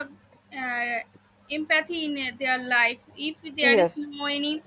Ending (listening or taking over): listening